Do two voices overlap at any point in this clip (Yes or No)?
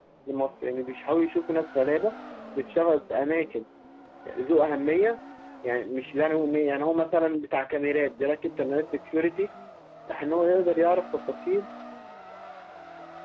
No